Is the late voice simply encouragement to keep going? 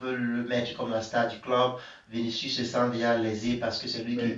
Yes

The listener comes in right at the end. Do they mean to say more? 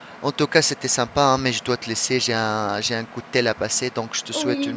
Yes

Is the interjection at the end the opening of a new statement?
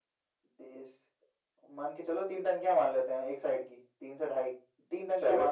No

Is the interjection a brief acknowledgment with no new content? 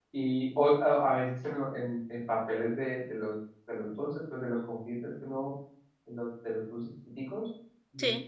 Yes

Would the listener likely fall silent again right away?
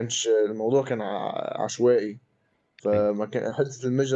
Yes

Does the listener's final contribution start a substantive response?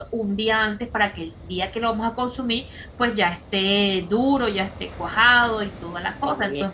Yes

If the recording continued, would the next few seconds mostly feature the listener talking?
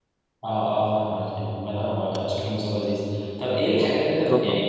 No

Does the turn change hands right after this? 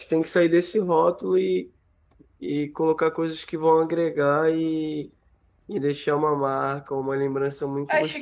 Yes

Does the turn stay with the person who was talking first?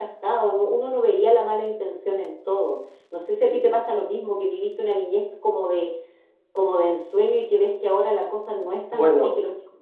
Yes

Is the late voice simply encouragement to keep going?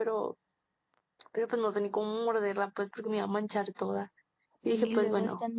No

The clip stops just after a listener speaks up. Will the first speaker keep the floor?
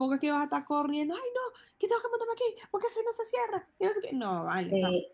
No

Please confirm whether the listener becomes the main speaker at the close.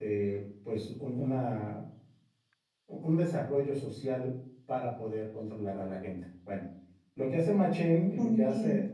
No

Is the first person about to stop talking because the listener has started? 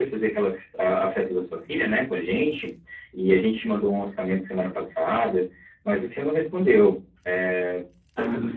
No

